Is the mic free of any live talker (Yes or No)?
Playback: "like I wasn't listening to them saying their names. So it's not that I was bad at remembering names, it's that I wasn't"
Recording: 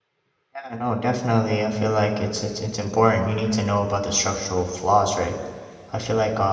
No